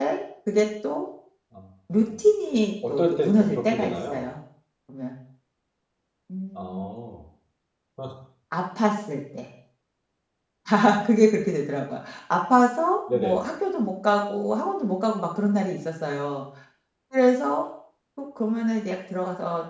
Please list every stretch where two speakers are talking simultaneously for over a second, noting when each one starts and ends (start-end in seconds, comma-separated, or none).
2.9-4.2